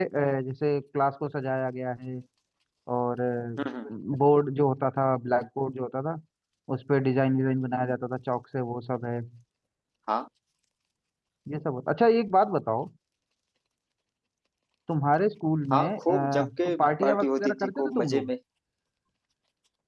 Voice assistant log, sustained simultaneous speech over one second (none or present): present